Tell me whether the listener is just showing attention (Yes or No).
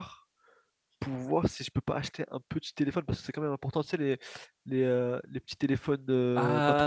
No